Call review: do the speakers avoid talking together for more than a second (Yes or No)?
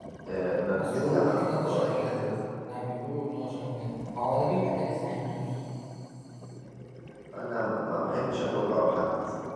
No